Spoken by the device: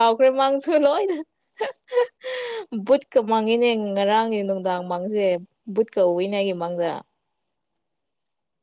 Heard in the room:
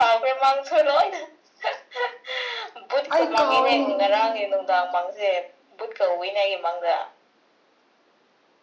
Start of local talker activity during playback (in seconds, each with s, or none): 3.1 s